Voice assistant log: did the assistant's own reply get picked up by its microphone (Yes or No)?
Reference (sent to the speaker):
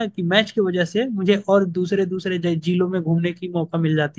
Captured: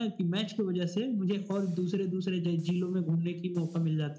Yes